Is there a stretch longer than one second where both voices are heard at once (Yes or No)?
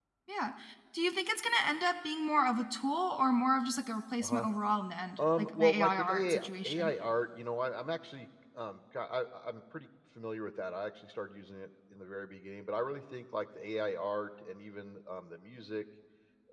Yes